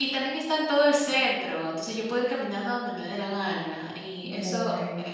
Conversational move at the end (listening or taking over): listening